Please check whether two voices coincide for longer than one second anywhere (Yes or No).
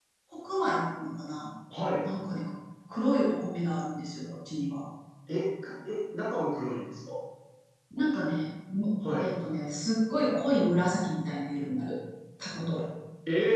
No